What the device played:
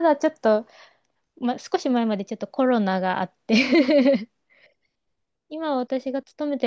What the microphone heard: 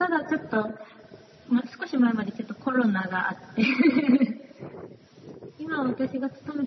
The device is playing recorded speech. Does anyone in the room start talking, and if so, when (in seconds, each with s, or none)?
none